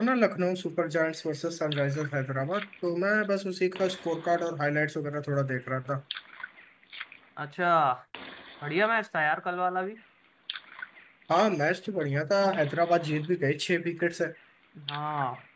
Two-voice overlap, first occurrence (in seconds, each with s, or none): none